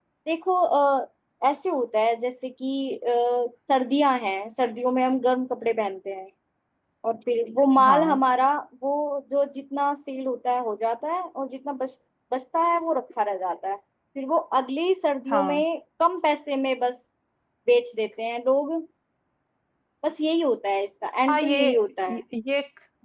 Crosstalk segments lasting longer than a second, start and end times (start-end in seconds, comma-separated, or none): none